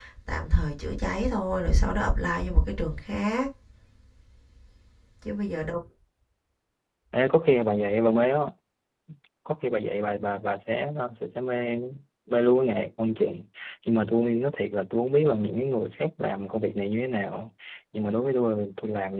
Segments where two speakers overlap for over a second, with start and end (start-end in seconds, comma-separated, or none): none